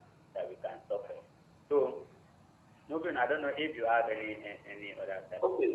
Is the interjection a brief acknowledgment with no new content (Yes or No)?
No